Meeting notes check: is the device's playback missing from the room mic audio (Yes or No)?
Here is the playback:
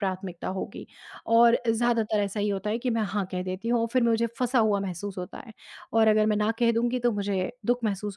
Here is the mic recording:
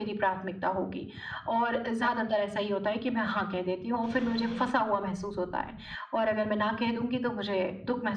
No